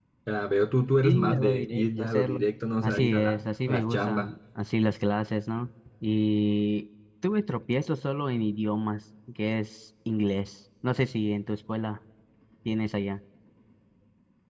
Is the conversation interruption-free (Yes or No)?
No